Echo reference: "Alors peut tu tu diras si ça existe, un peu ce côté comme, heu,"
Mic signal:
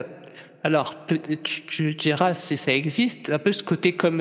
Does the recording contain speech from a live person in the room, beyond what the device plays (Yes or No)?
No